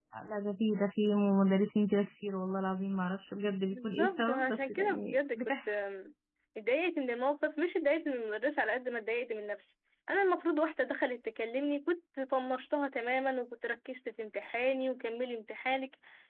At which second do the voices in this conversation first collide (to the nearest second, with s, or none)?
4 s